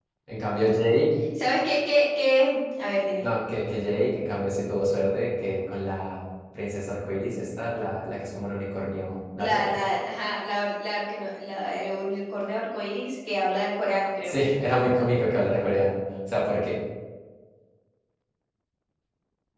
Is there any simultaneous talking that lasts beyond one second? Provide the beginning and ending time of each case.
none

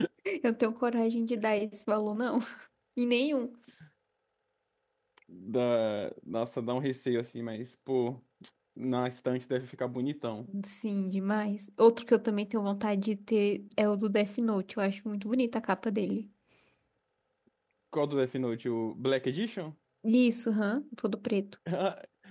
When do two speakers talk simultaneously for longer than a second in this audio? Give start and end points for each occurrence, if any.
none

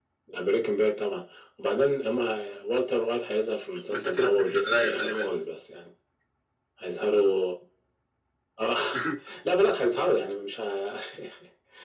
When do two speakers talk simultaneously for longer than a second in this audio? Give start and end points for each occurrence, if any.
3.9-5.3

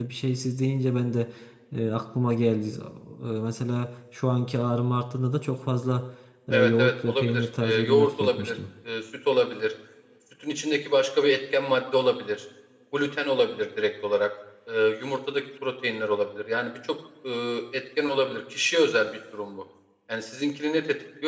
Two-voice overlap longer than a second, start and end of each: 6.5-8.6

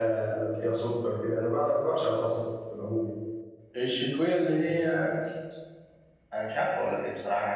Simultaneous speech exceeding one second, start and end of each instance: none

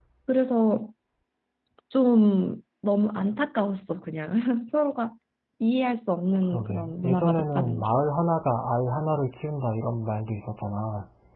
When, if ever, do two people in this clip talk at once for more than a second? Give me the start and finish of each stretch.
6.5-7.9

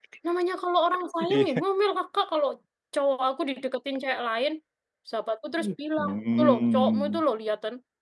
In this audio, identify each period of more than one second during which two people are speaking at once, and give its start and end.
6.0-7.2

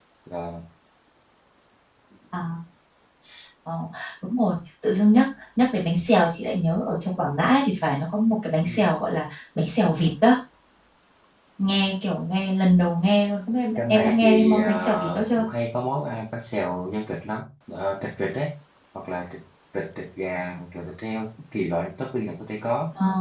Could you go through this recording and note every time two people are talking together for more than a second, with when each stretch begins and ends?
13.8-15.4

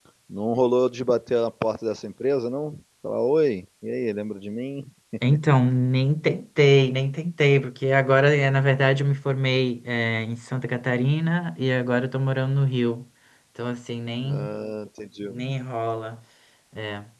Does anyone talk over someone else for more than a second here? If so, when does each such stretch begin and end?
none

